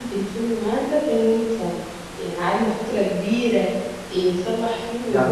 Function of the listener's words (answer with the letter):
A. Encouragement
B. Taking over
B